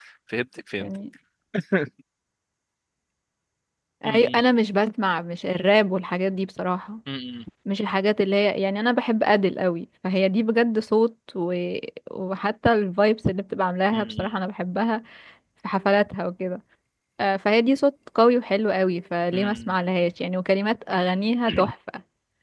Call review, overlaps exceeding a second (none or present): none